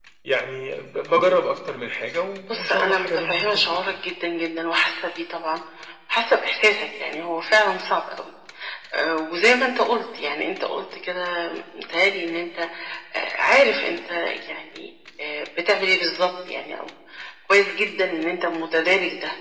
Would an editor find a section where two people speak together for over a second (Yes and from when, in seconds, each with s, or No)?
Yes, from 2.4 s